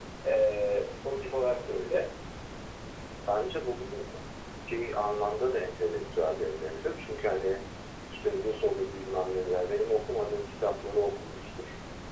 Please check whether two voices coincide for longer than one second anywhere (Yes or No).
No